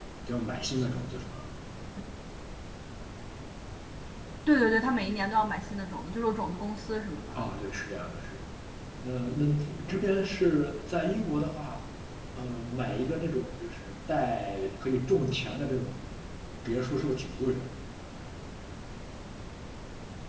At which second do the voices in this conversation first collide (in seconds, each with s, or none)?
none